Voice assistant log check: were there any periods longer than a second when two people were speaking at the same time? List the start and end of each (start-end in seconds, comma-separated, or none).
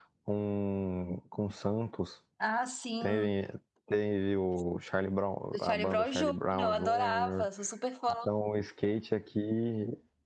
5.5-7.5